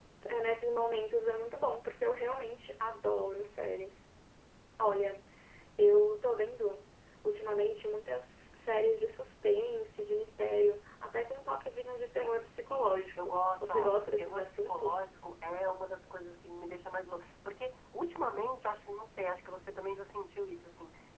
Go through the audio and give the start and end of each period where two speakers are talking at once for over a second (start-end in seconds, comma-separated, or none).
12.2-15.0